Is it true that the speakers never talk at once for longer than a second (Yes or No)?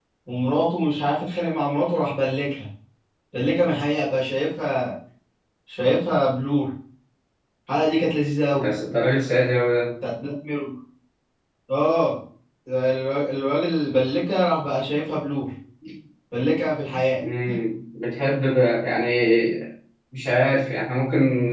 Yes